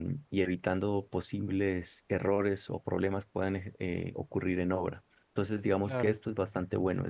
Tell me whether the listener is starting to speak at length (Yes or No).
No